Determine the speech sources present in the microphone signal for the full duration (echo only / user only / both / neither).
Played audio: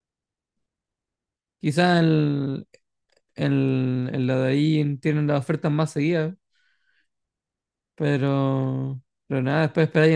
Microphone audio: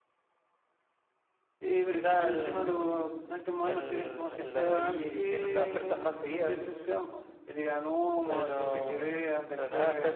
both